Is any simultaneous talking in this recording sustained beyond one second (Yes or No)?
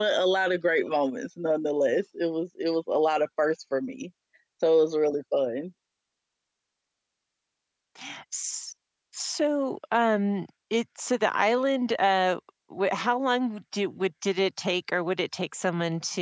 No